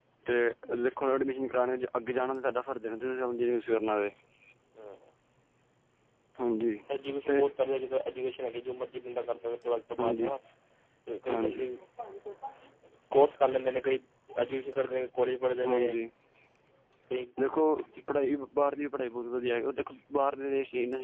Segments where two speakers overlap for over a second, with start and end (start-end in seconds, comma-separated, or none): none